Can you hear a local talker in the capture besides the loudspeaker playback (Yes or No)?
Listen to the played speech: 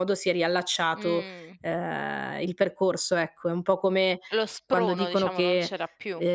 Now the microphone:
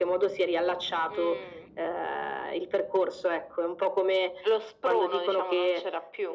No